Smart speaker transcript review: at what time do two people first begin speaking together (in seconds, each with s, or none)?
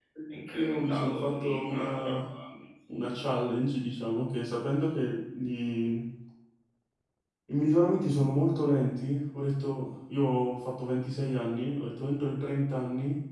0.5 s